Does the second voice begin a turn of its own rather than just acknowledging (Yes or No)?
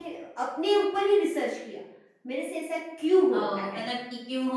Yes